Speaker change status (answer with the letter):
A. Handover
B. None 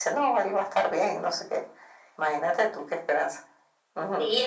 A